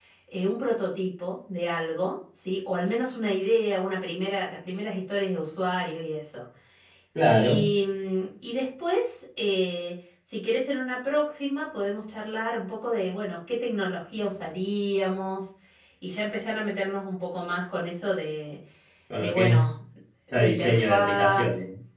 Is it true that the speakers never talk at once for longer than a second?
No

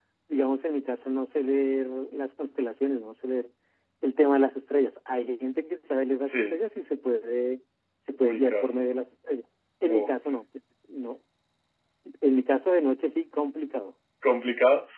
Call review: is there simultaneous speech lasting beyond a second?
No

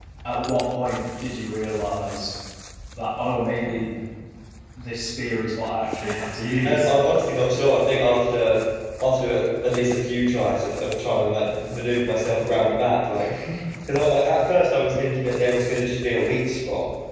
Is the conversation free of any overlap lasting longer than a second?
Yes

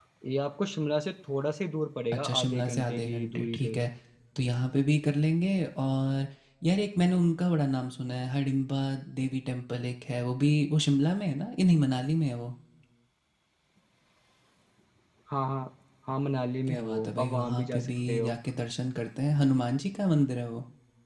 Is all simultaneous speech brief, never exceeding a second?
No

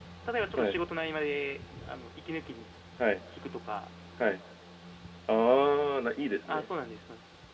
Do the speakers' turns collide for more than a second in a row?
No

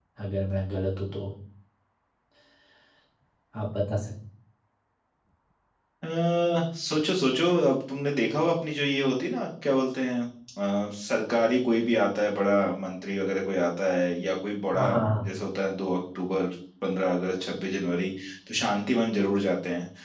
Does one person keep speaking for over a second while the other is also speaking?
No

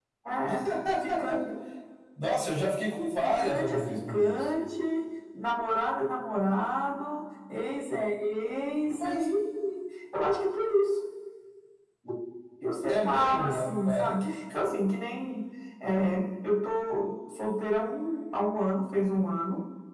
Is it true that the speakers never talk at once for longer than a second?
No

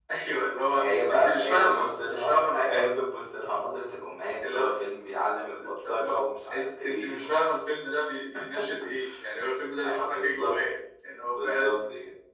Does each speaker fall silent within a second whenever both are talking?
No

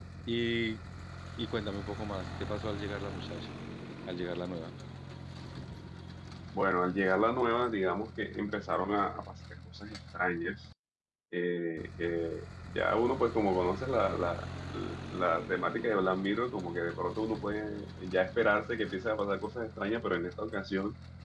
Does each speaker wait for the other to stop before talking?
Yes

